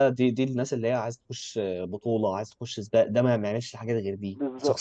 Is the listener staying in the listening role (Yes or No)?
No